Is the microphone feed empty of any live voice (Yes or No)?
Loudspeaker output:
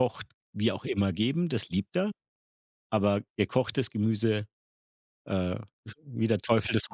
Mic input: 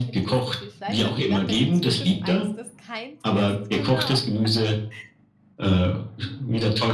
No